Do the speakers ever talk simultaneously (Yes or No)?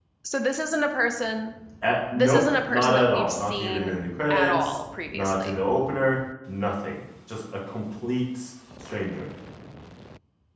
Yes